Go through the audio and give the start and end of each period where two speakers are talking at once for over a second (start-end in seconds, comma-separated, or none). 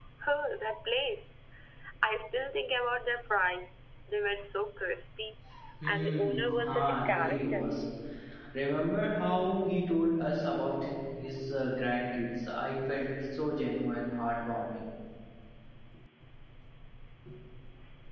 5.8-7.6